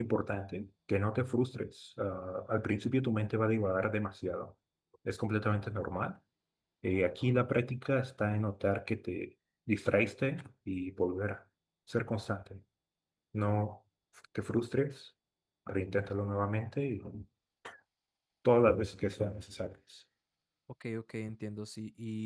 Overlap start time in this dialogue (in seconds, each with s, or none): none